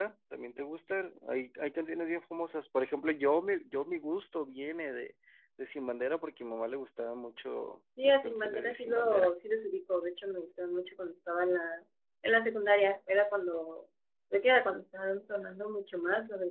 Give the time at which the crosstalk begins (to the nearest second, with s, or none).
8 s